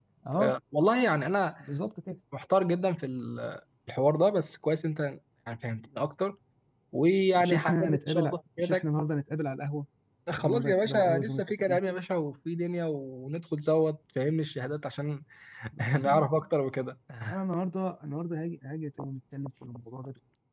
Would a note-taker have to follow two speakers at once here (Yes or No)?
Yes